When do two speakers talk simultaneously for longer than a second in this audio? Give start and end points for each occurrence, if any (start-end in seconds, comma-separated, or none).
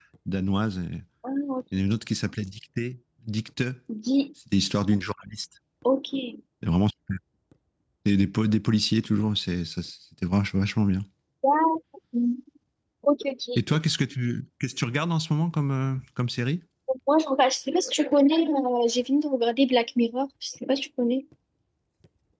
none